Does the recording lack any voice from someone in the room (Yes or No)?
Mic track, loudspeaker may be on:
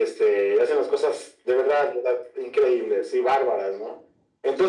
Yes